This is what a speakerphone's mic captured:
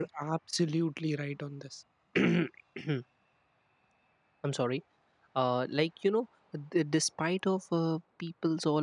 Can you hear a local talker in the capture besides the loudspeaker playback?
Yes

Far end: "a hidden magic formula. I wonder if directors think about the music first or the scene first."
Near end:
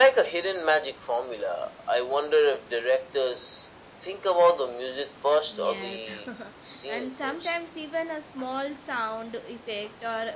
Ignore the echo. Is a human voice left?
Yes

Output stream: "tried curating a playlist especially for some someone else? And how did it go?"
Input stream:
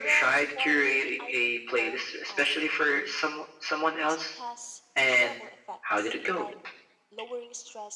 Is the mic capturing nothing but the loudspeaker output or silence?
No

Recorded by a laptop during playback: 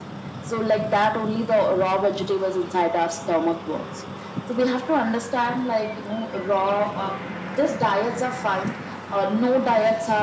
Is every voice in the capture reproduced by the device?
Yes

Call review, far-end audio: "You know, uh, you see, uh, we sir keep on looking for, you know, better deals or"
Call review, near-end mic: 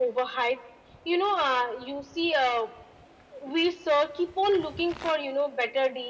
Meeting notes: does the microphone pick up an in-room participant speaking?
No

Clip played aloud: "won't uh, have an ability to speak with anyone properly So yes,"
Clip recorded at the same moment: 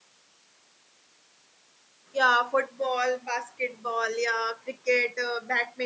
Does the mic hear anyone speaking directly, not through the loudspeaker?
Yes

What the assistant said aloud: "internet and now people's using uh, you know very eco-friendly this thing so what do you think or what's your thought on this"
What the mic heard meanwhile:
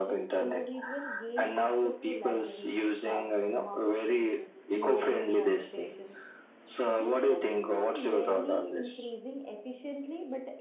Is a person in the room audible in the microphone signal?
Yes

